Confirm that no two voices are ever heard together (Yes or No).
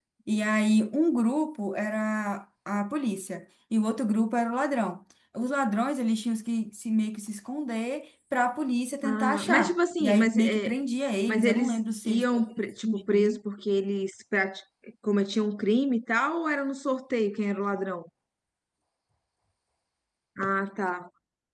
No